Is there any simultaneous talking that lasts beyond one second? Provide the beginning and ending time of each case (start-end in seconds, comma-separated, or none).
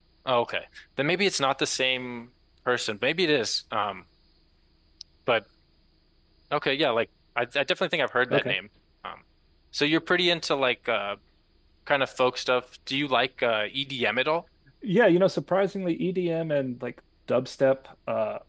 none